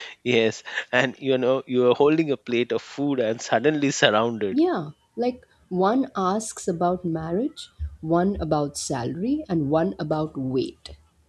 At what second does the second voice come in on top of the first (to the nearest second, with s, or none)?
none